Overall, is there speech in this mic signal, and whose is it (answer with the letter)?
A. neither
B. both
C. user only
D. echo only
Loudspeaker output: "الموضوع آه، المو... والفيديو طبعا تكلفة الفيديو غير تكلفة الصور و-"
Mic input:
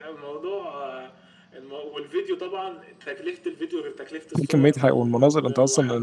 B